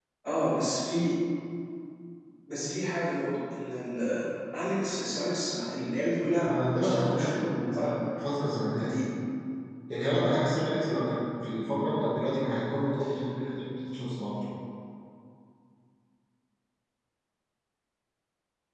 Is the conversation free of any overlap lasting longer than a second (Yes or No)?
No